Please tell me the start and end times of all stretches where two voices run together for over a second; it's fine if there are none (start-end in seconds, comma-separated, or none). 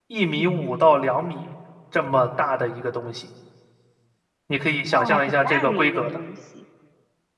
4.9-6.2